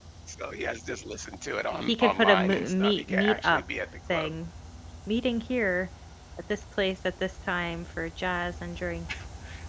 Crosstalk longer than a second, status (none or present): present